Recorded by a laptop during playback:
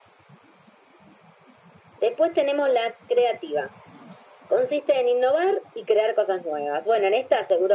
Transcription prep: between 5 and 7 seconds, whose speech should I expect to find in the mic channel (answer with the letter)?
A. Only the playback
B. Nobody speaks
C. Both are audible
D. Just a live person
A